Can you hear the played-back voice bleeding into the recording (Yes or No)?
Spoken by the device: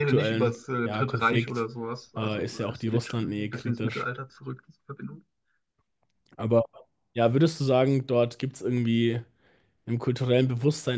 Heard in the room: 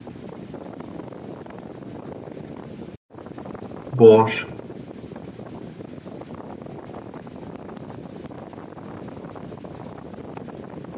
No